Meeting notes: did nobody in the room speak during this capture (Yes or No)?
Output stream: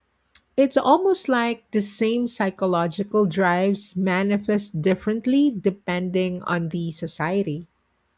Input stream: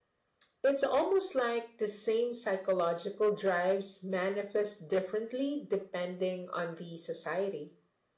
Yes